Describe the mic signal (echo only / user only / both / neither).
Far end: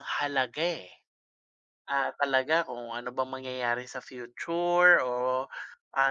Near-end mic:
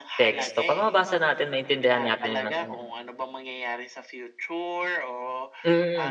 both